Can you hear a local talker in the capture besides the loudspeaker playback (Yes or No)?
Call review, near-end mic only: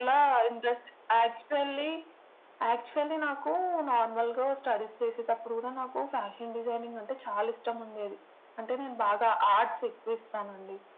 No